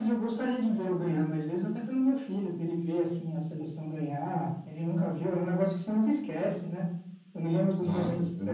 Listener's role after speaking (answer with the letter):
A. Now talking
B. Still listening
B